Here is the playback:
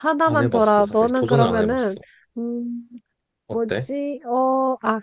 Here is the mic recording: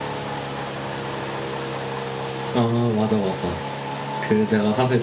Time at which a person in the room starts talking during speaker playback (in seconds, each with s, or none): 2.5 s